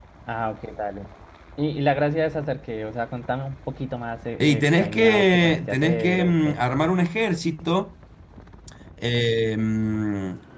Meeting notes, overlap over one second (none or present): present